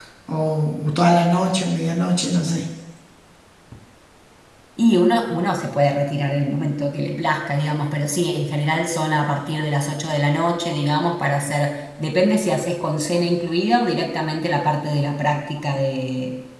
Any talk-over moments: No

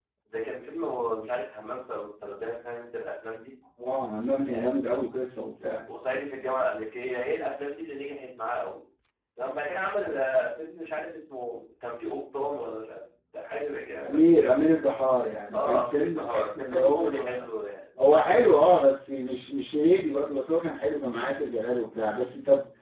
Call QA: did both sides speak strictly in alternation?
No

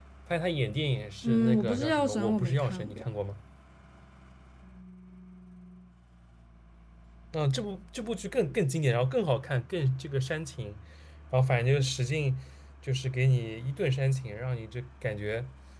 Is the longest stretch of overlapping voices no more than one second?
No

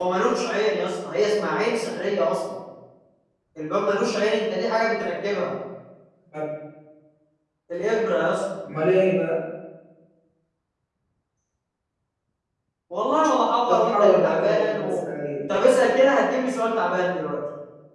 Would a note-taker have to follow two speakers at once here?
Yes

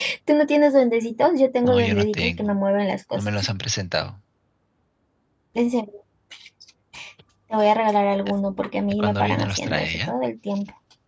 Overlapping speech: Yes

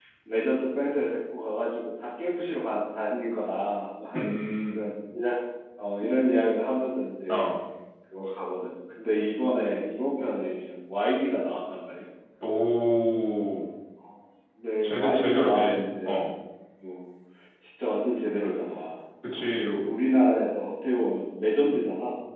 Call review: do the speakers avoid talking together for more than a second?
No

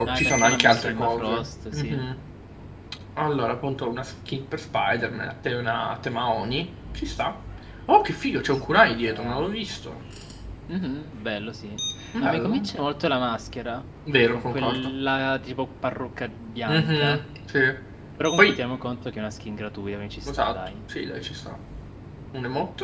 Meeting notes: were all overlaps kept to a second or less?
No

